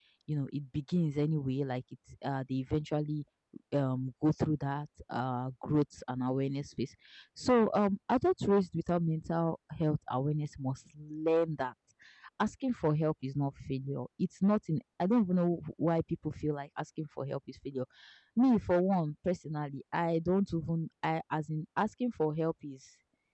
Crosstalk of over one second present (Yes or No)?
No